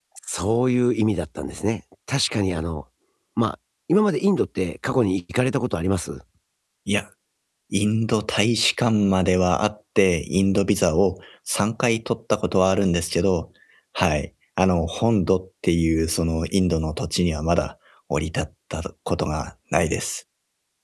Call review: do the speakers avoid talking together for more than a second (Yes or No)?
Yes